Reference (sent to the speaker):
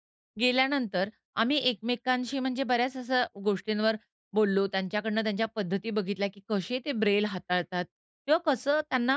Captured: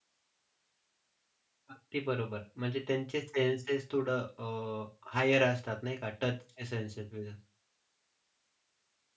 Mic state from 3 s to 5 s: user only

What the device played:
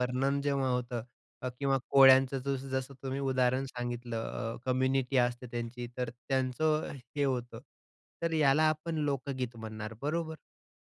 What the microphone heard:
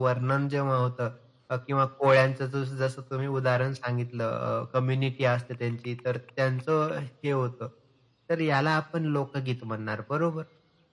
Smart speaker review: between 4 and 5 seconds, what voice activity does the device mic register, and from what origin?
echo only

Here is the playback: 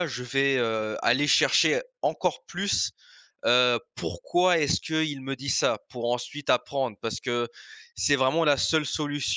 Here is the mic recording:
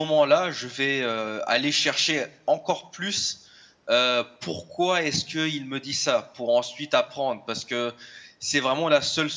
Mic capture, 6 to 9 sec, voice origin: echo only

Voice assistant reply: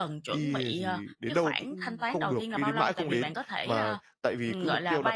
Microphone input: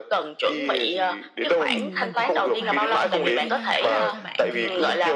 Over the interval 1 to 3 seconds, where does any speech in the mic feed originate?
both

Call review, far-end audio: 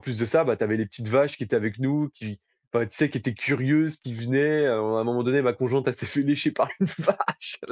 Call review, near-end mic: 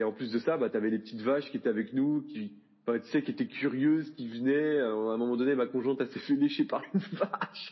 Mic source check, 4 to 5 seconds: echo only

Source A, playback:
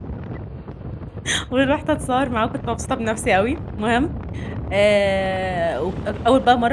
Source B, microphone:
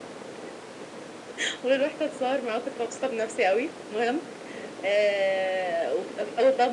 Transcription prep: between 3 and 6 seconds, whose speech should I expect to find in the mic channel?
echo only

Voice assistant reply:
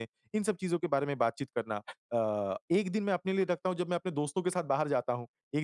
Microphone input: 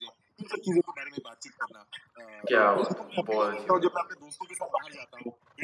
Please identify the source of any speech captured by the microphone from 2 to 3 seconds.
both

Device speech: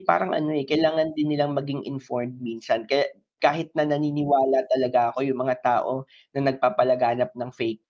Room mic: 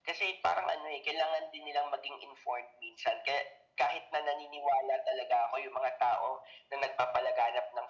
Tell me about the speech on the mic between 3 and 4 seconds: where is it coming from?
echo only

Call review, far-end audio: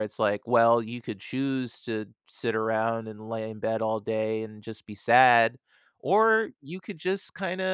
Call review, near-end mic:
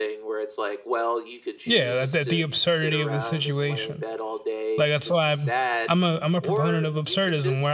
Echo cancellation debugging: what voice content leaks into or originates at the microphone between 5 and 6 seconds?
both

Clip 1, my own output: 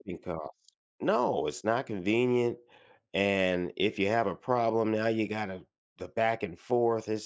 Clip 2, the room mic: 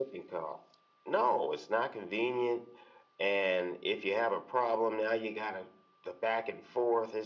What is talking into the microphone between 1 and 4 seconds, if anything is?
echo only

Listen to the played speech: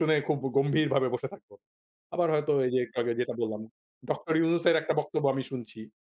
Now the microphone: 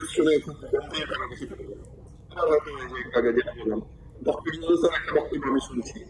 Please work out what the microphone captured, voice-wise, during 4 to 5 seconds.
echo only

